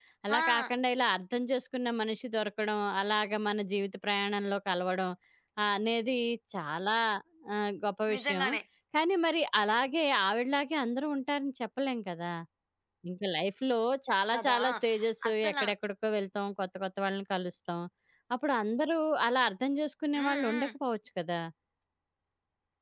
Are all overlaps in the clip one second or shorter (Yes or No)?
Yes